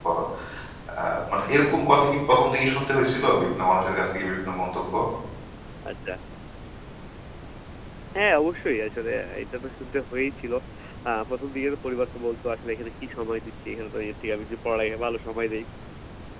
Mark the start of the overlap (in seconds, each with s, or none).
none